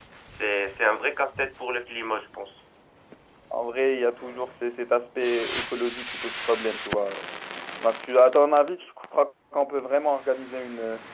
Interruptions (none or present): none